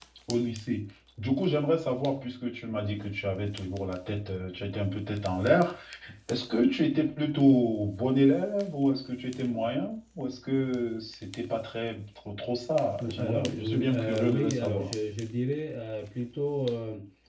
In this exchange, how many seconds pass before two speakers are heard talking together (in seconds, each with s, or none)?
13.0 s